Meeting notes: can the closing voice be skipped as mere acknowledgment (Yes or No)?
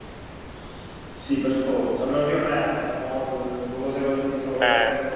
No